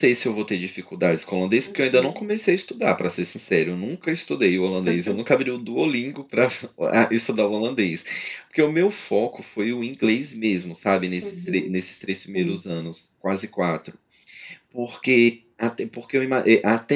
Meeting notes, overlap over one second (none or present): none